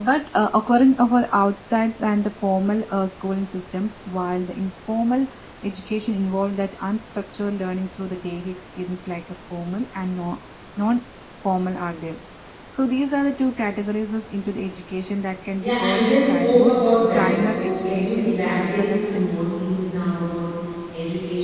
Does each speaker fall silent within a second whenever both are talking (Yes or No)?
No